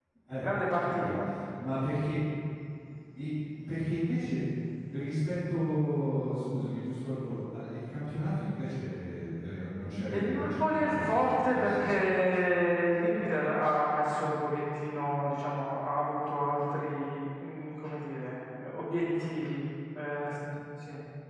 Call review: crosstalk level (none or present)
present